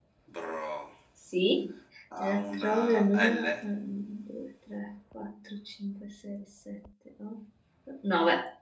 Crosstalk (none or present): present